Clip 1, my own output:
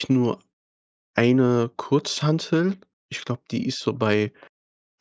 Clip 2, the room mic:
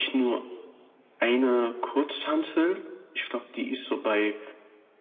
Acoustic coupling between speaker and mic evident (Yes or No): Yes